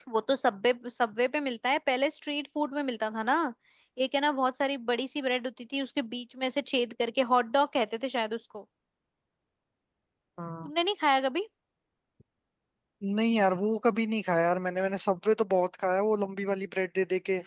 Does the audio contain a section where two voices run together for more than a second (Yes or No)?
No